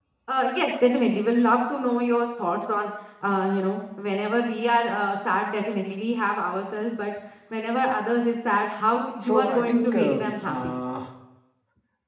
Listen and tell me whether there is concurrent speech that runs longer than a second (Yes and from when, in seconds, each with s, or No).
Yes, from 9.2 s